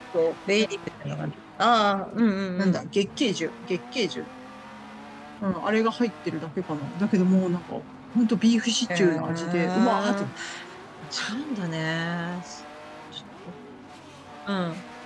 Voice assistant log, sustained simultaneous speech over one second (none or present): present